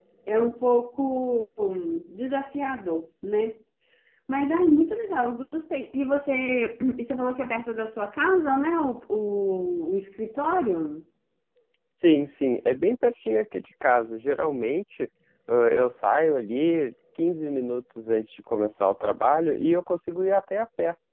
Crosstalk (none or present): none